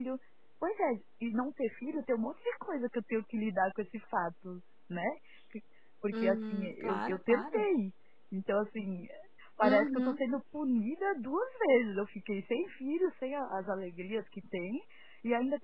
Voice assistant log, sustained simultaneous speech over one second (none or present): present